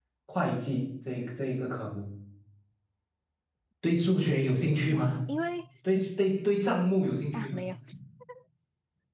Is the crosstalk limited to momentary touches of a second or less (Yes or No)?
Yes